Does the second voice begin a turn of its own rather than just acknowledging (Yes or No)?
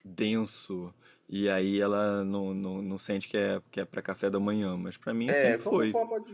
Yes